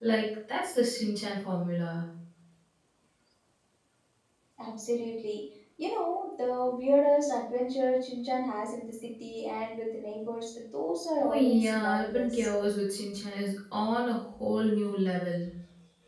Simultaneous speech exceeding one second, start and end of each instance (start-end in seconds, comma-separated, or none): 11.2-12.5